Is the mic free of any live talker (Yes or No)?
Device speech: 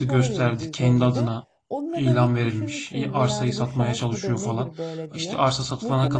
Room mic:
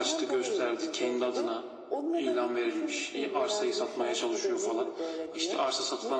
Yes